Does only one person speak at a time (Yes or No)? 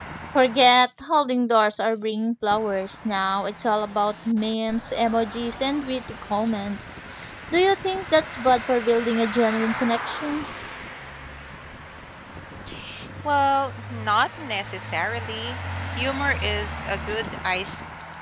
Yes